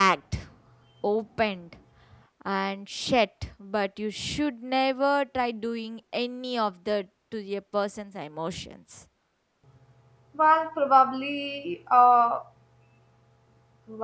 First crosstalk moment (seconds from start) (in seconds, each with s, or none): none